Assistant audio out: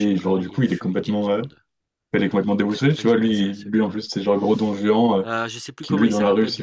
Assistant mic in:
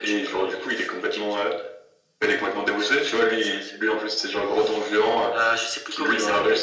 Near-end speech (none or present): none